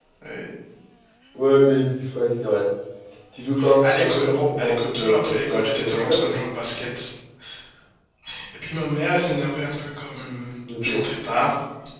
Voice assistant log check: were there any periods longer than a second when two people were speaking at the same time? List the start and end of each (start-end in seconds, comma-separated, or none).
3.8-6.3